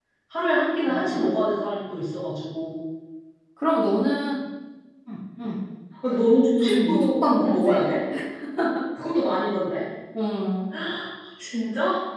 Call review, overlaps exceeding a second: present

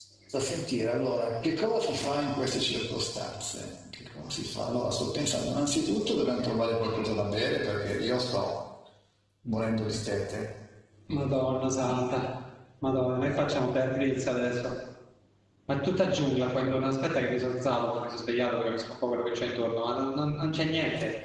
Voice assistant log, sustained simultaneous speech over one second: none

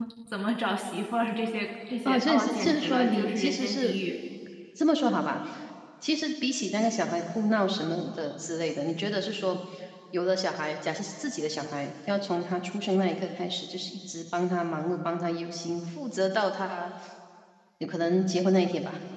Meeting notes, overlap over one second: present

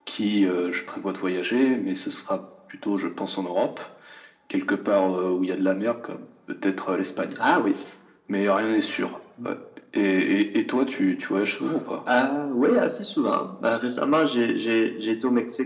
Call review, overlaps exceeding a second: none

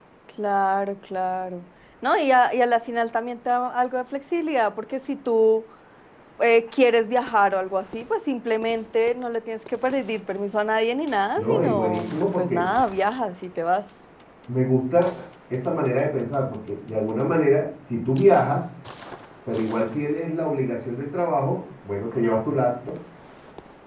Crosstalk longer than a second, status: present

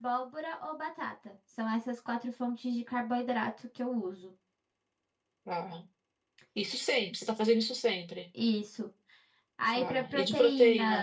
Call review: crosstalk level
present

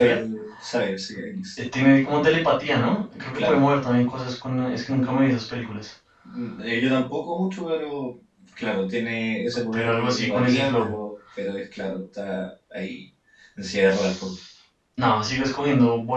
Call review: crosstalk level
present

